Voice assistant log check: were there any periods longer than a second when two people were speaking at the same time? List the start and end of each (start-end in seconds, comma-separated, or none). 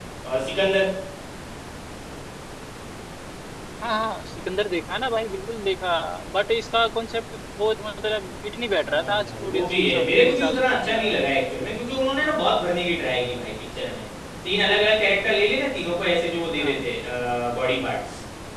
8.8-11.4